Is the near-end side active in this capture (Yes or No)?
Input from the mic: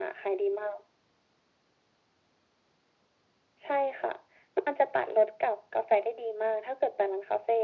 No